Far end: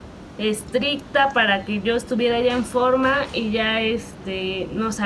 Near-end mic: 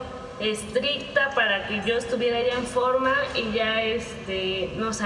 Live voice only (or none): none